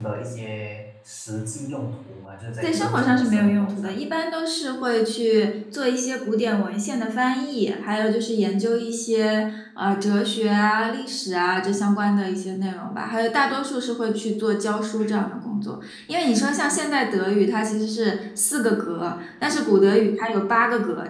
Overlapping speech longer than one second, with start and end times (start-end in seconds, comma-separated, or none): 2.6-4.0